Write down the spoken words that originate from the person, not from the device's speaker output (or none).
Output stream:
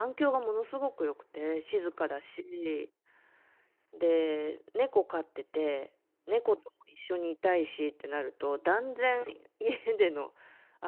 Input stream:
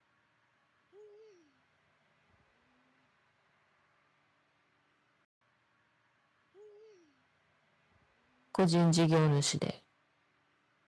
個人事業主で。